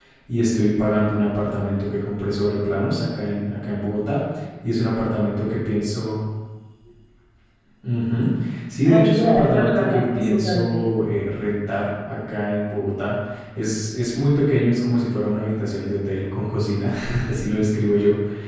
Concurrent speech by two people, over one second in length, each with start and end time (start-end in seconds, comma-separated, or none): 8.8-10.9